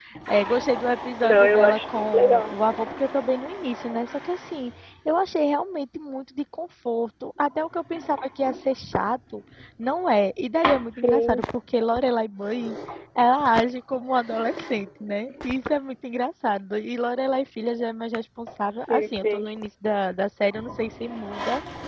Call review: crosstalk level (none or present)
present